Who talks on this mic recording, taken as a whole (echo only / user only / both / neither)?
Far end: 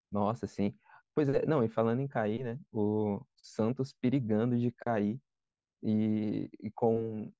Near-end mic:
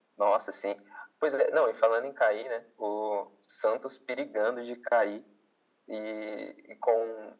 echo only